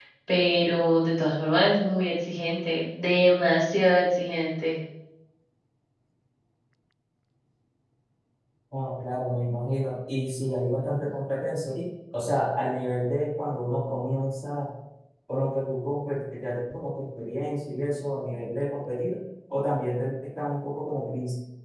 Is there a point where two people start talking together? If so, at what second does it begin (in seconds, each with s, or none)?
none